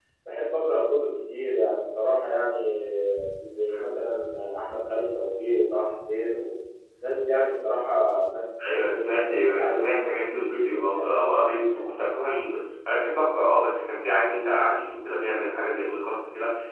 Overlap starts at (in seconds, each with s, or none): 8.6 s